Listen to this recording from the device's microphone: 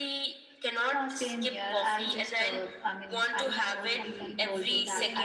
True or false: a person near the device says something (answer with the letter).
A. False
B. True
B